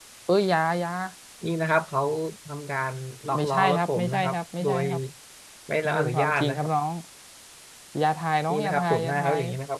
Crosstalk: present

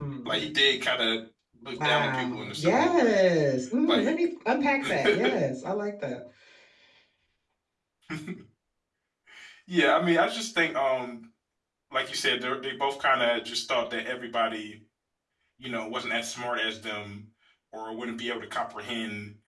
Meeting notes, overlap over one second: present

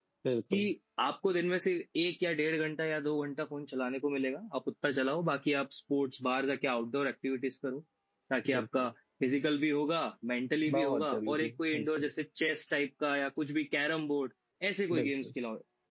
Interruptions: present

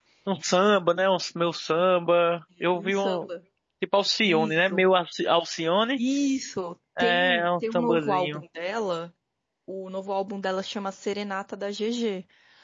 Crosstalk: present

